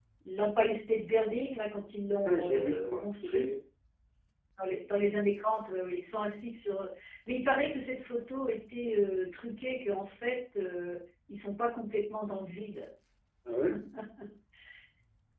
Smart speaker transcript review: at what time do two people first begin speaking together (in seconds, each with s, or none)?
2.2 s